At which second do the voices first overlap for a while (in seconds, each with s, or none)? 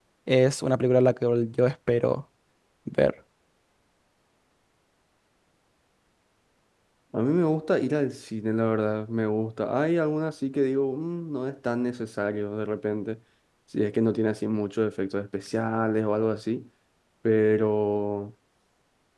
none